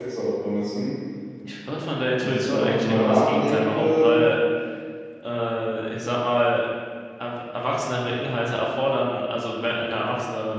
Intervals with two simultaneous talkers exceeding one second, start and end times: 2.2-4.2

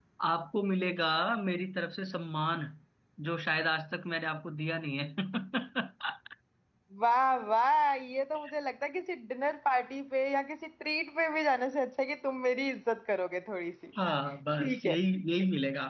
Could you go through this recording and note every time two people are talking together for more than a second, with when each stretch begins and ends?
none

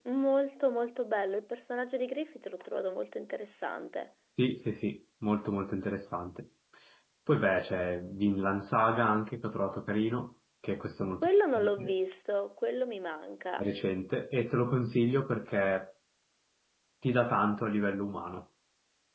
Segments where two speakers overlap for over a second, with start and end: none

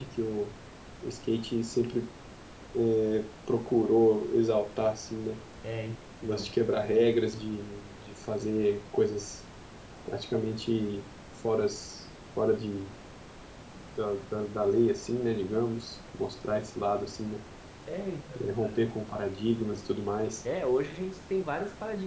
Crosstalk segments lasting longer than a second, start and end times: none

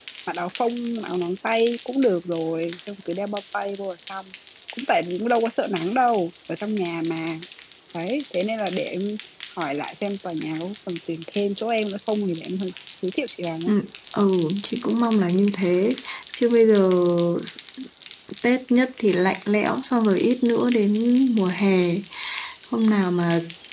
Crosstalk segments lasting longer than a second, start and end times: none

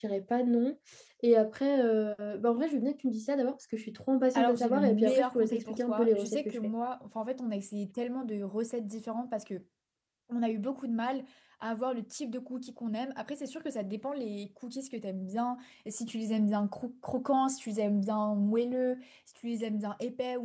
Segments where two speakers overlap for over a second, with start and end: 4.3-6.6

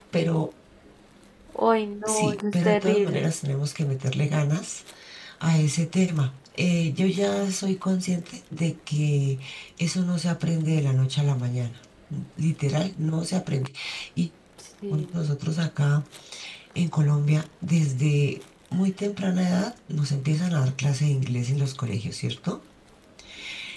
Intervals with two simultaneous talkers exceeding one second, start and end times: 2.0-3.3

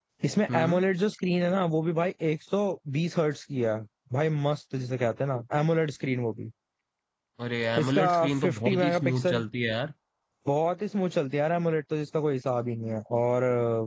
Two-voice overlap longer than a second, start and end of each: 7.8-9.4

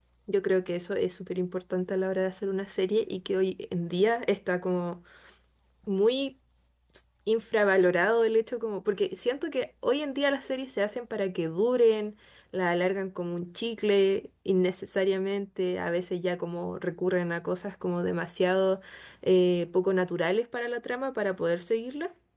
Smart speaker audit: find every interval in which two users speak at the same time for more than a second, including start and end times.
none

